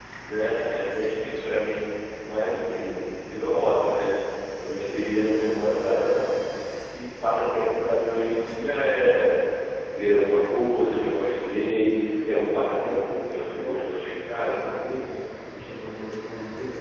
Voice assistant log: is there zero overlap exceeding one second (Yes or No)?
No